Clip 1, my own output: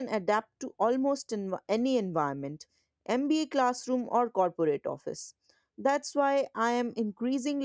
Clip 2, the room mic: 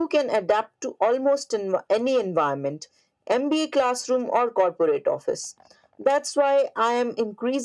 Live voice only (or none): none